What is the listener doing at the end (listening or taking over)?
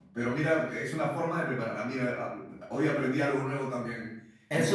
taking over